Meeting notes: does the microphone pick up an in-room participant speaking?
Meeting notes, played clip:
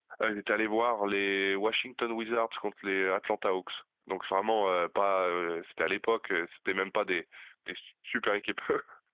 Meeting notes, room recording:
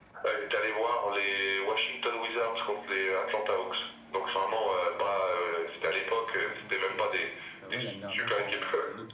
Yes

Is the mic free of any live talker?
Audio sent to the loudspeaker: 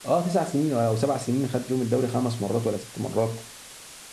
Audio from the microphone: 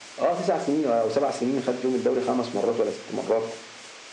Yes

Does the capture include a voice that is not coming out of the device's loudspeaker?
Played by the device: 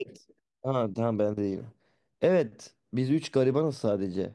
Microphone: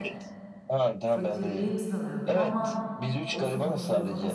Yes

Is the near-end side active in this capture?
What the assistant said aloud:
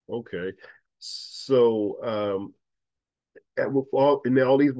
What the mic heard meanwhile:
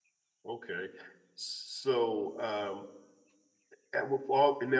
No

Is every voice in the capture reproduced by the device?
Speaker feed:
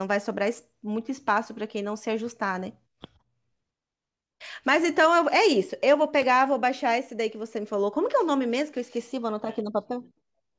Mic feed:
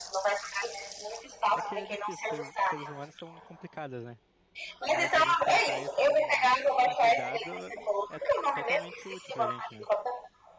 No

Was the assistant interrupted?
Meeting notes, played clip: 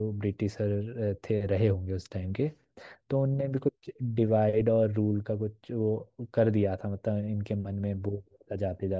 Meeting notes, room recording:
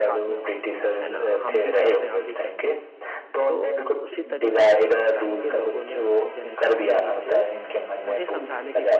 Yes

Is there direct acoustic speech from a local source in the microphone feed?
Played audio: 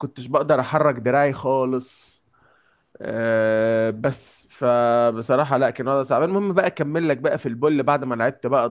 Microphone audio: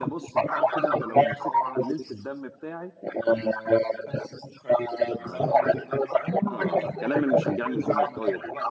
Yes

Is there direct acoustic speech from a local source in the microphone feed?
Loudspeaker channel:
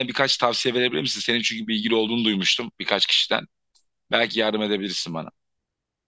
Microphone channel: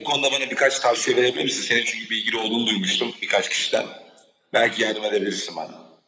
No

